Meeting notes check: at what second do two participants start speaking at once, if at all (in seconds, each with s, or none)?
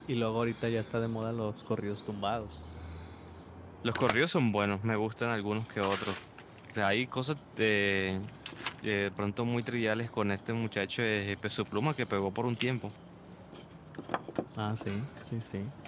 none